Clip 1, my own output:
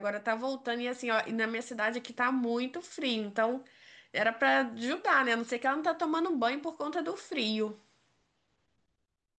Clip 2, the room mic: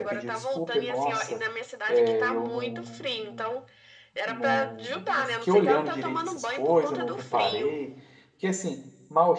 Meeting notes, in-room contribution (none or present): present